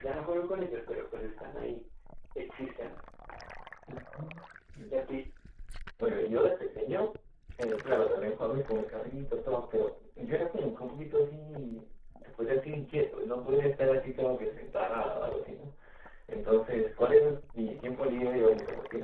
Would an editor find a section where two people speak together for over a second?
No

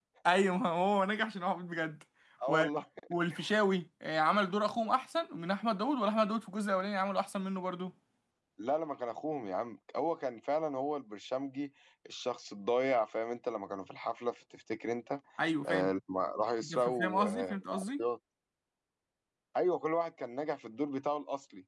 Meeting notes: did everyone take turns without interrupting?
No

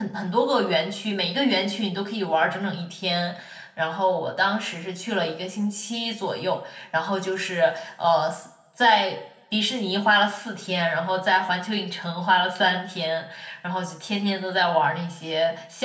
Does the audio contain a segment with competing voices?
No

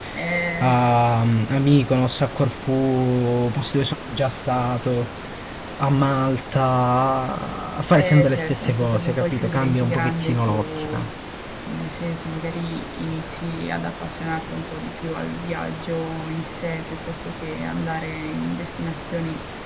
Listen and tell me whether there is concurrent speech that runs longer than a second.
Yes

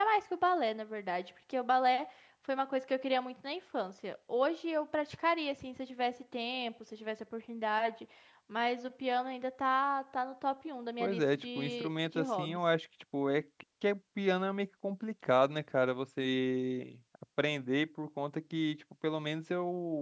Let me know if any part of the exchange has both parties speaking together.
Yes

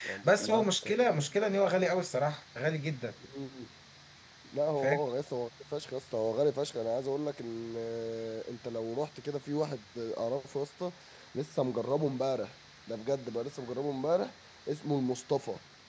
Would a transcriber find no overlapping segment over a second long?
Yes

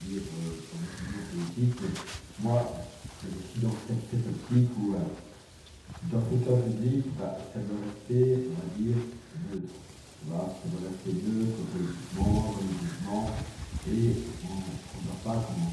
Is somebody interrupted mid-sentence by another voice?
No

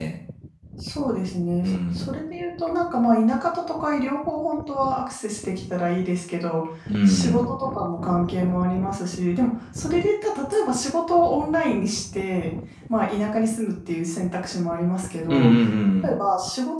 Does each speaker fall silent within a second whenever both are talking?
Yes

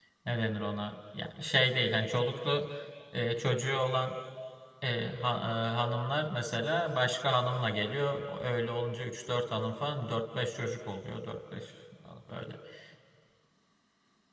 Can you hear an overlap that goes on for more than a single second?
No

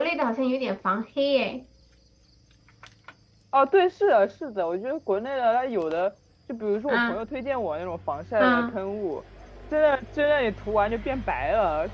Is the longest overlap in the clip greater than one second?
No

